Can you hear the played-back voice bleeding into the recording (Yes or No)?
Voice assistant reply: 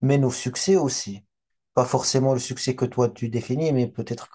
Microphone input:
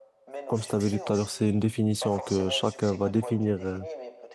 Yes